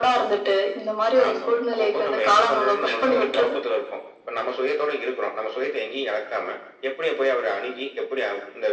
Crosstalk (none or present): present